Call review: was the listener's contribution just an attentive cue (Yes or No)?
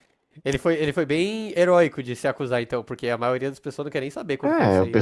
No